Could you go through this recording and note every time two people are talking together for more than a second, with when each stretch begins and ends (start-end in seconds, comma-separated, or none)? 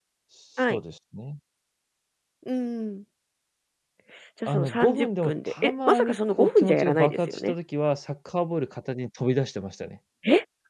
4.5-7.5